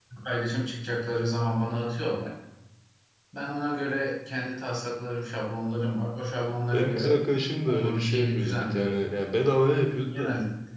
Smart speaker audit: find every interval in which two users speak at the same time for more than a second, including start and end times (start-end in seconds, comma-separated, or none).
7.7-9.0